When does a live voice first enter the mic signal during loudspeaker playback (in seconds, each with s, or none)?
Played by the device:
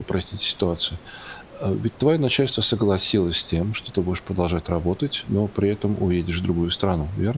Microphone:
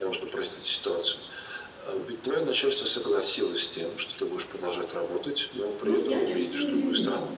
5.8 s